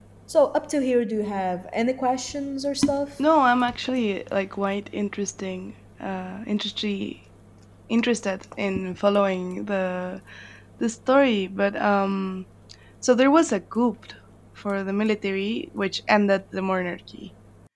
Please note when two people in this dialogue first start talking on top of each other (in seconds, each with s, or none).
none